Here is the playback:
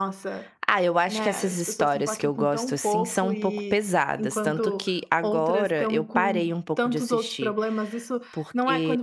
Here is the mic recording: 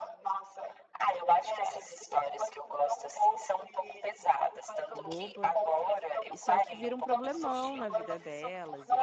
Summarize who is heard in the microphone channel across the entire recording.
both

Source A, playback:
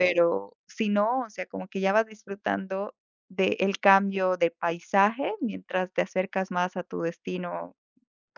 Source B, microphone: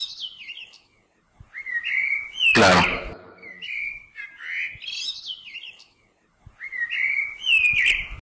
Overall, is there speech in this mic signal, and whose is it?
user only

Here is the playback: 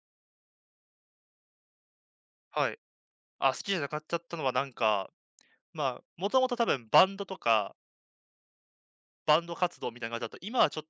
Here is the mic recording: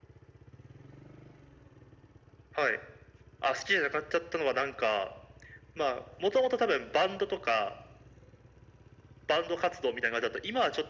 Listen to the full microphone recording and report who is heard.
echo only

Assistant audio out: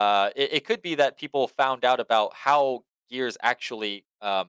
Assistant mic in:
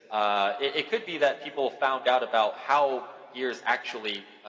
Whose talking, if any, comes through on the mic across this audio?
echo only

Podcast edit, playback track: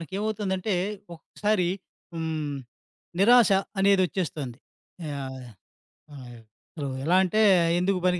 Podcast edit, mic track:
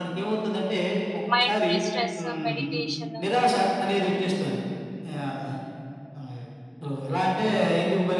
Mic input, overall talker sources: both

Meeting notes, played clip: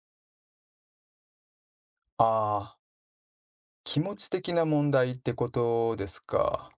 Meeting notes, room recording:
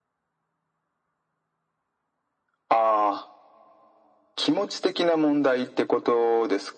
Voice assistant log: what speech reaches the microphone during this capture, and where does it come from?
echo only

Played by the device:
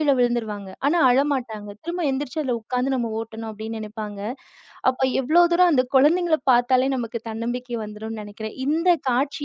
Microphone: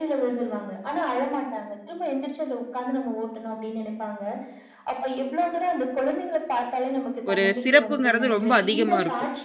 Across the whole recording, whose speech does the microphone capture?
both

